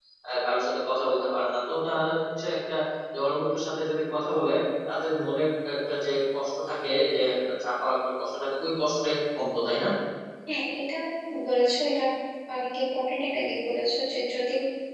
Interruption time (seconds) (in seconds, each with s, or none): none